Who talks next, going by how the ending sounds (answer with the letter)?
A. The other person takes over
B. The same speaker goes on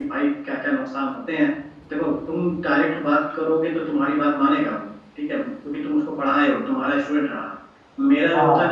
B